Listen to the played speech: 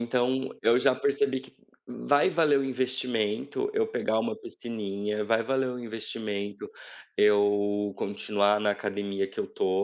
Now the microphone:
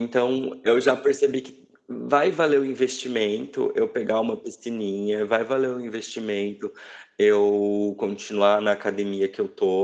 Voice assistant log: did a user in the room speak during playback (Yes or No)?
No